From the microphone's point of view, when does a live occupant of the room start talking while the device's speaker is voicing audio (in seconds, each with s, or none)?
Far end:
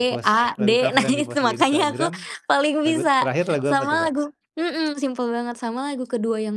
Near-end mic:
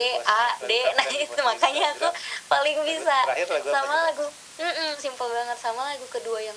none